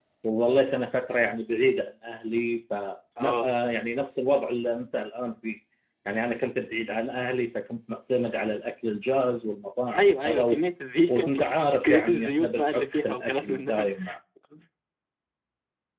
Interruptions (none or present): present